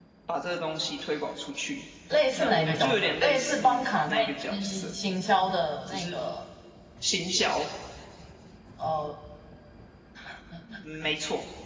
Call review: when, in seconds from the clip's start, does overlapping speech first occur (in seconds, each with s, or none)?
2.4 s